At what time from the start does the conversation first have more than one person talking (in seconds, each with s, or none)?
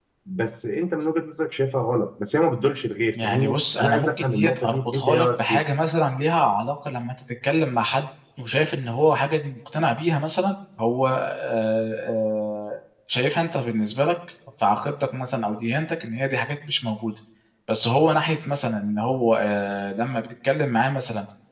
3.1 s